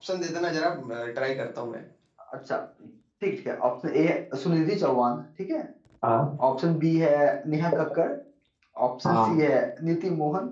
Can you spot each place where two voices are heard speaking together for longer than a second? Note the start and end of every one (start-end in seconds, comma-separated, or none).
none